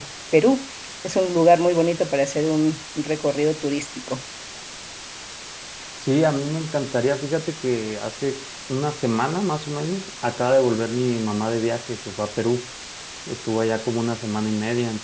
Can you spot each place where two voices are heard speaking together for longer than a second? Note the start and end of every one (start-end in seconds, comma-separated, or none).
none